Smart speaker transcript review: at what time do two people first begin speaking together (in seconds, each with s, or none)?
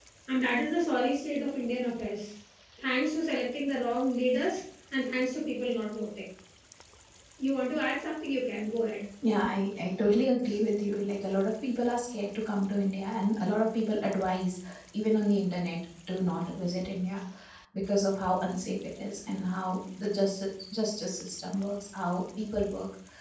none